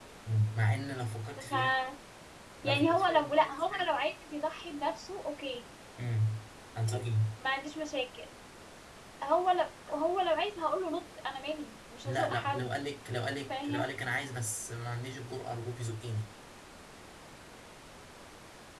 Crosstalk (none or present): present